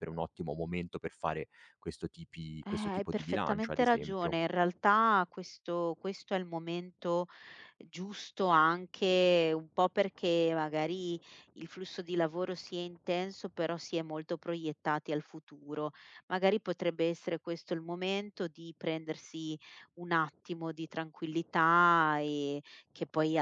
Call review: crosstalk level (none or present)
present